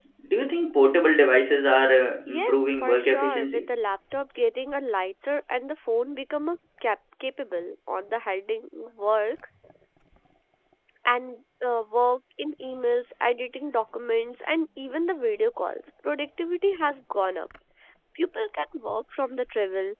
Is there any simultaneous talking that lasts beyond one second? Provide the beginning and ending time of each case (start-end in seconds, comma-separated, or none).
2.3-3.7